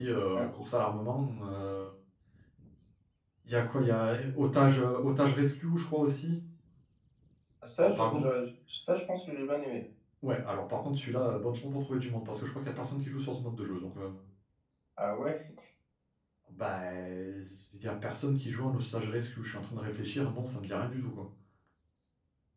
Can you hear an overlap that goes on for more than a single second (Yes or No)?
No